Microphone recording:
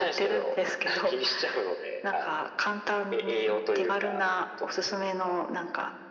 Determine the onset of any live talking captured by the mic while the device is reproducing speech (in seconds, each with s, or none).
none